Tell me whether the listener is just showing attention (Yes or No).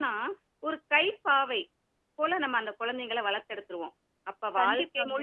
Yes